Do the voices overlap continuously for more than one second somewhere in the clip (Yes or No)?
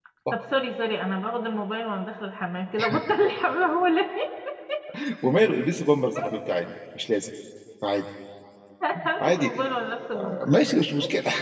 No